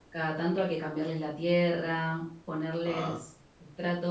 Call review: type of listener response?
listening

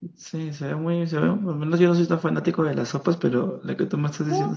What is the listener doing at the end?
taking over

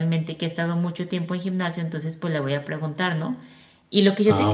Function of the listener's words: listening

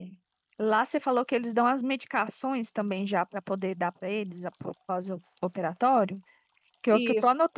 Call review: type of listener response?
listening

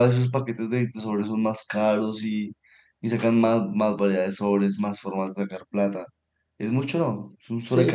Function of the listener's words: taking over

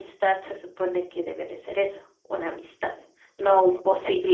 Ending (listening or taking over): listening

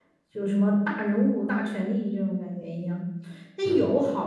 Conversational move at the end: listening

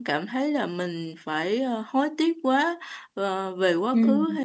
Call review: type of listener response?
listening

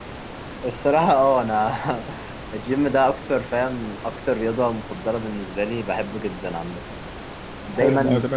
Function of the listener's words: taking over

